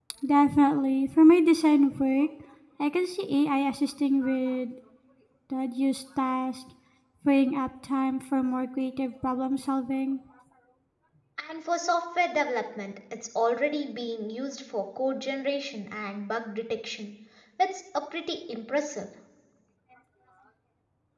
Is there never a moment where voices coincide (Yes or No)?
Yes